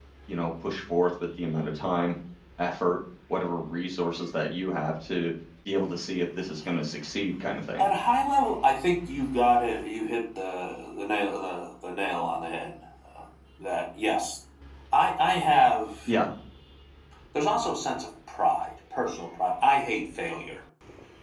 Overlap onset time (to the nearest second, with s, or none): none